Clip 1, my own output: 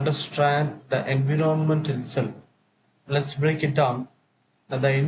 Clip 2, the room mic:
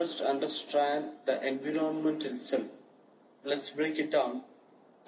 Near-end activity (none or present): none